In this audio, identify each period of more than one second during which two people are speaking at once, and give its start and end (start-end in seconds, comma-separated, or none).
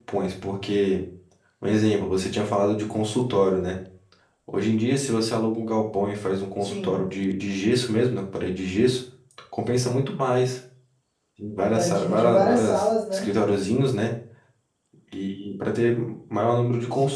11.7-13.3